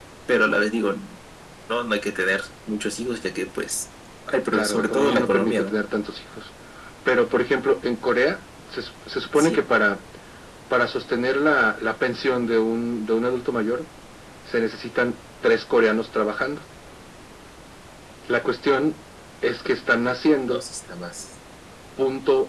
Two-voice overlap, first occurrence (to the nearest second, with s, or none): 5 s